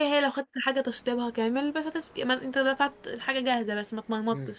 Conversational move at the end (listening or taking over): taking over